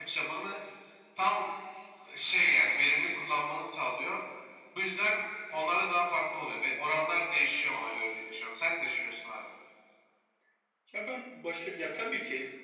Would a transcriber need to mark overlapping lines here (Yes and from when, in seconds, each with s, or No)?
No